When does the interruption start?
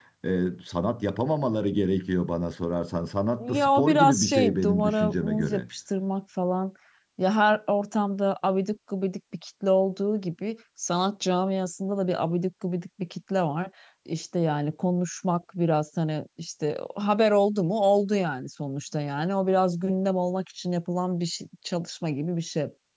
3.4 s

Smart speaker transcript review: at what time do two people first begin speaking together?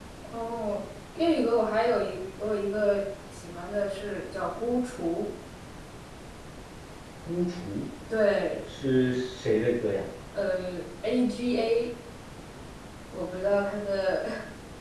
none

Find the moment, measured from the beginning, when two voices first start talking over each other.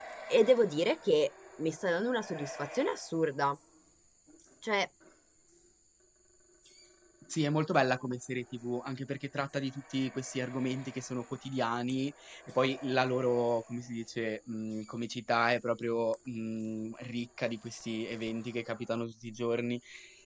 none

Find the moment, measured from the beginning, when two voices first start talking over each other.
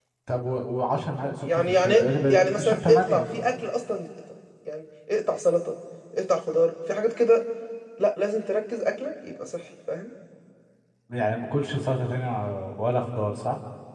1.2 s

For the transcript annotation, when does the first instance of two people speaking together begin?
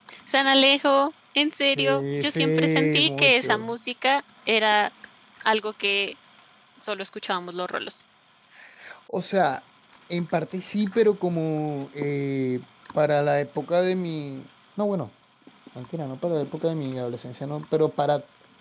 1.8 s

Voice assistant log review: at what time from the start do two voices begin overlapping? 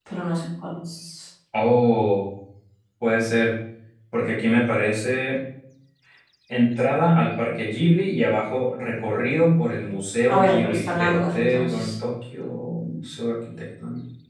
10.3 s

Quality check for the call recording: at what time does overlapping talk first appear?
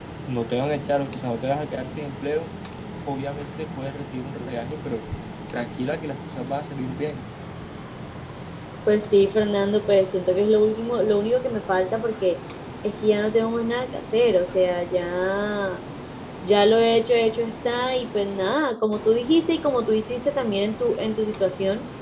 none

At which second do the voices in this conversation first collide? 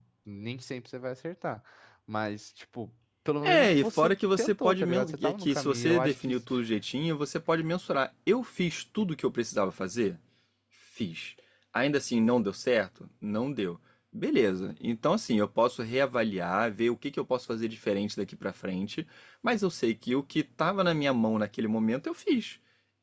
3.4 s

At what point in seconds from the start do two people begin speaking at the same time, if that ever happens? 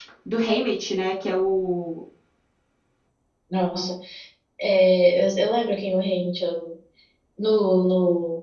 none

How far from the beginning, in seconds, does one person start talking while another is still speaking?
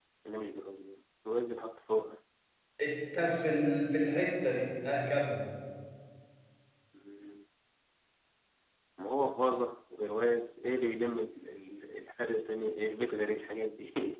none

